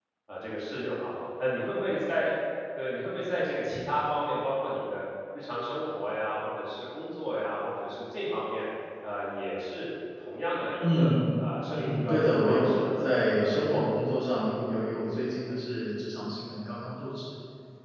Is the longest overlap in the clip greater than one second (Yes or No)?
Yes